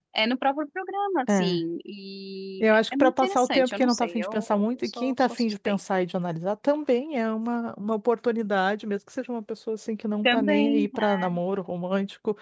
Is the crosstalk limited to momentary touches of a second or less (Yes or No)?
No